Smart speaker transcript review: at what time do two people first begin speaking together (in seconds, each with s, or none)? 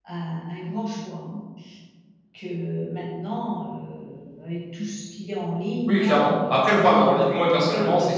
5.9 s